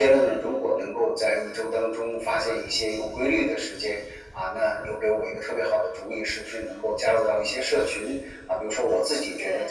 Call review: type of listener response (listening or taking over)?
listening